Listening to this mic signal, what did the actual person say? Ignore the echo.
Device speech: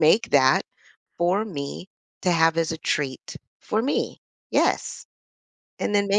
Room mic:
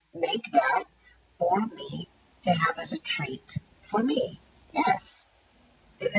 none

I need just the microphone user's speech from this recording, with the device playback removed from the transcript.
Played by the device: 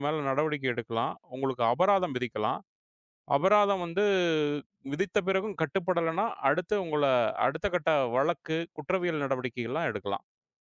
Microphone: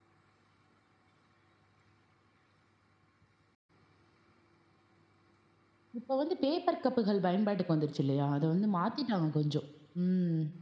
இப்ப வந்து பேப்பர் கப்புகள் பயன்பாட்டுக்கு வந்துருச்சு இல்லையா? அத வந்து மாத்திட்டாங்க கொஞ்சம். ம்.

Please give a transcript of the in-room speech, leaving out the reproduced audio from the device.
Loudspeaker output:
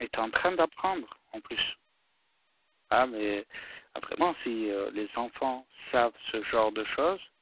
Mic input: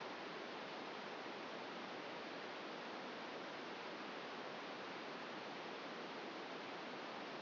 none

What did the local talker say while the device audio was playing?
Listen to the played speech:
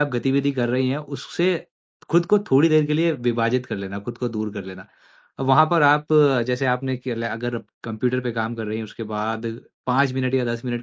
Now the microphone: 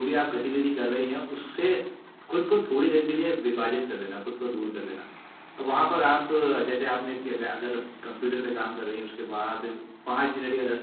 none

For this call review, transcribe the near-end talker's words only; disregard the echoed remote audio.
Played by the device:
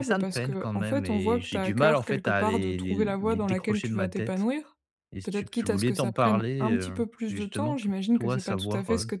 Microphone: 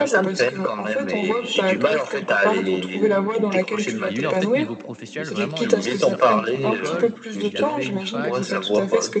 et lui, en fait, niveau professionnel, vraiment, il est sorti de son école, il a fait une fac,

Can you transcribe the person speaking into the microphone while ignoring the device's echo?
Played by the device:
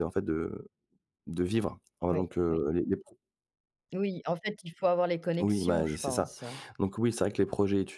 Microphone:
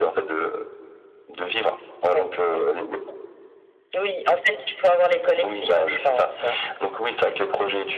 none

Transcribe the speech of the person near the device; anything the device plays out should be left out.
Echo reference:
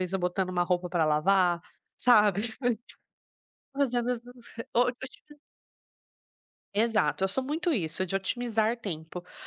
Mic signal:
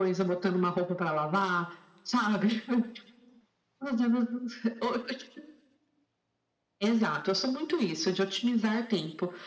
none

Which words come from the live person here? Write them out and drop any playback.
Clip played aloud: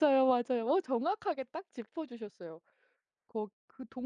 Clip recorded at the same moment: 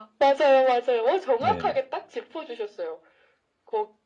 네네.

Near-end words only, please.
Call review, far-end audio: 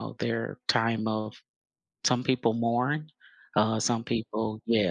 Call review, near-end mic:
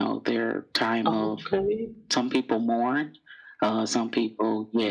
Okay,

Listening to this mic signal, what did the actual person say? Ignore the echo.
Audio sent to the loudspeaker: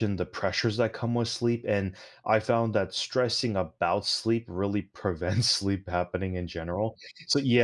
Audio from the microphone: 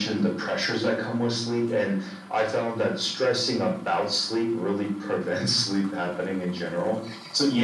none

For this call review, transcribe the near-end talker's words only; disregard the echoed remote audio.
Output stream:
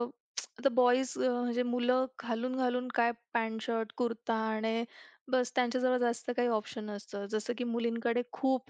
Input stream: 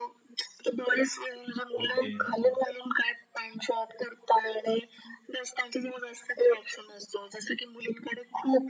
ओके. हं, हं.

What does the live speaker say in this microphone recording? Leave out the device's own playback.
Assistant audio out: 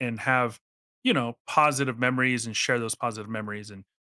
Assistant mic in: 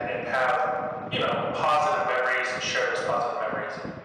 none

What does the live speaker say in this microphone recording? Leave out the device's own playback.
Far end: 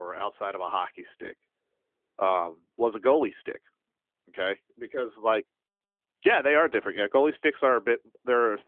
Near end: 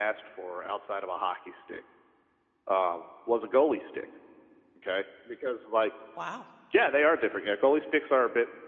Wow,

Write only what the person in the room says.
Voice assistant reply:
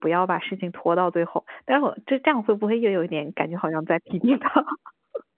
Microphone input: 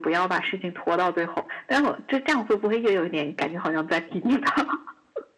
none

